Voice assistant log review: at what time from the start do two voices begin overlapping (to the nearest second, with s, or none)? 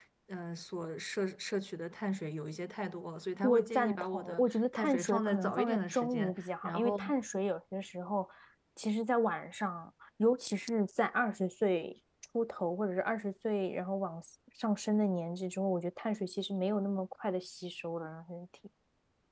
3 s